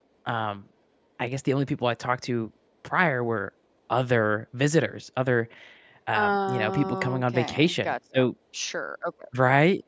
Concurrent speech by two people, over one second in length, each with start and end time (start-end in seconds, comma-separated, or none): 6.1-8.2